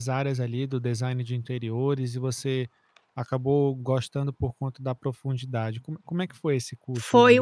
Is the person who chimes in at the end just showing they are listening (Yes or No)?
No